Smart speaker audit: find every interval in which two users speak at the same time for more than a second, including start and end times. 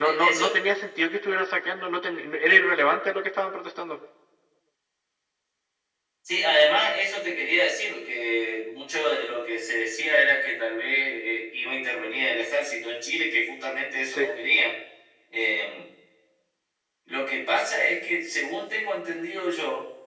none

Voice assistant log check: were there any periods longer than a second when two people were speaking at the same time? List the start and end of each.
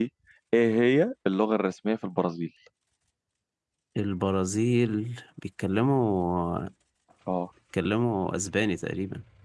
none

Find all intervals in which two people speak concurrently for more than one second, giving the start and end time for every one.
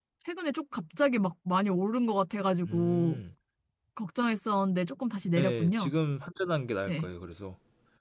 none

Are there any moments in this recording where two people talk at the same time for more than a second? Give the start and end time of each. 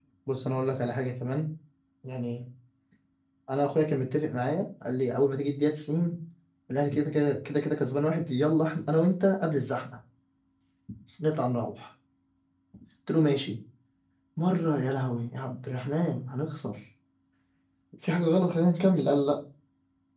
none

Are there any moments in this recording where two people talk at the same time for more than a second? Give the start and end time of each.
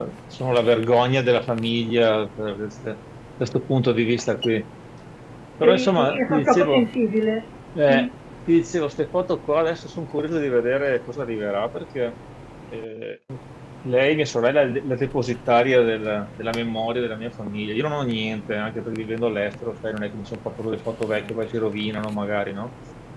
5.6-6.9

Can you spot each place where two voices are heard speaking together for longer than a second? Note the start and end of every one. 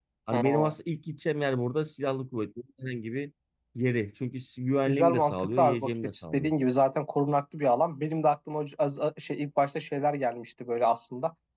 4.9-6.5

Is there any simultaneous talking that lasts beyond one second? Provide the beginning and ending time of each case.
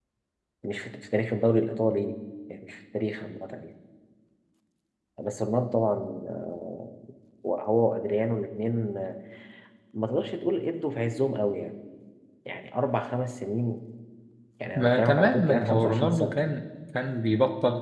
14.8-16.4

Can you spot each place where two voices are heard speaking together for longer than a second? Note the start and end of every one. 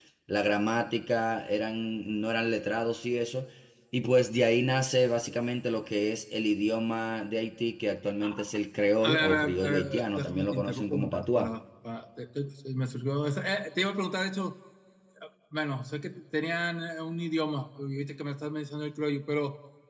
9.0-11.5

